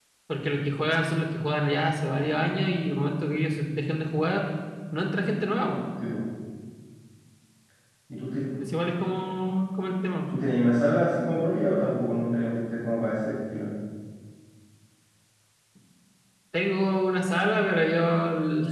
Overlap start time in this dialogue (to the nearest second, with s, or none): none